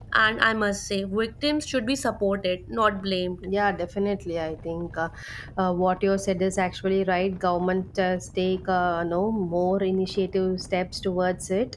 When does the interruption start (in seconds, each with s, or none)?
none